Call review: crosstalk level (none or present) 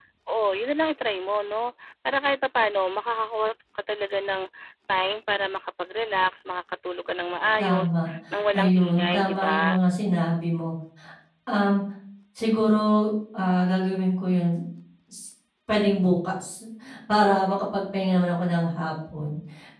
present